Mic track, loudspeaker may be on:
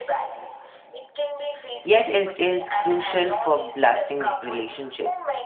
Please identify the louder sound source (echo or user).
user